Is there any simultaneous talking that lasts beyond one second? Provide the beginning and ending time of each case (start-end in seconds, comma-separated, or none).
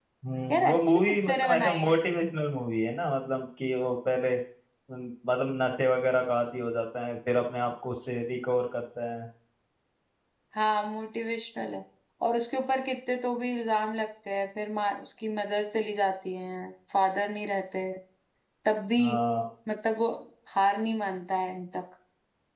0.5-2.0